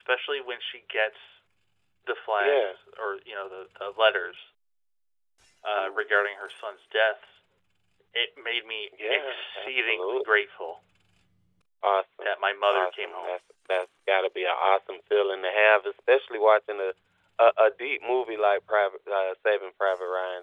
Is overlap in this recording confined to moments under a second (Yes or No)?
No